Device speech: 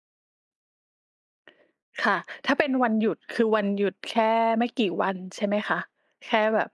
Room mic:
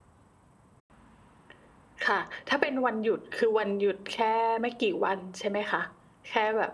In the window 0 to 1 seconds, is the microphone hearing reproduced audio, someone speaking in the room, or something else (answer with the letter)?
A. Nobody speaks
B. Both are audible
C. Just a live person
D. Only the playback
A